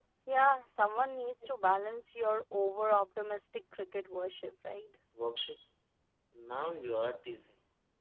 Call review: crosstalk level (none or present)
none